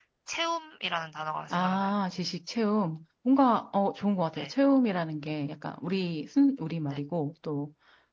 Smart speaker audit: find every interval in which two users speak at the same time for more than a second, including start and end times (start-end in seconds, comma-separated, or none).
none